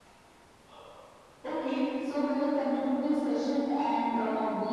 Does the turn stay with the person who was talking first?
Yes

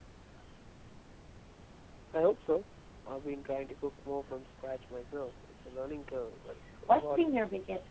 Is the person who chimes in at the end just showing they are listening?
No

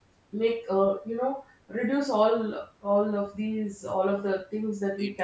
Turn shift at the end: No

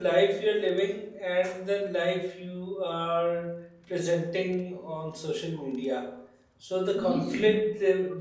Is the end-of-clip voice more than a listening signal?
No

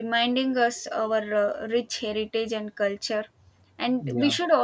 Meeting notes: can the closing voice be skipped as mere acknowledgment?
Yes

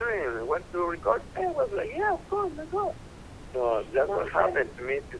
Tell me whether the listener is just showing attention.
No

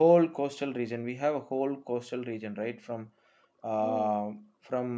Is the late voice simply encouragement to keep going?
Yes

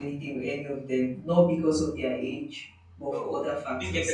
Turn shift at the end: Yes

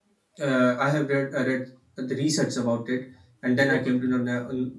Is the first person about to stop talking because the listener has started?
No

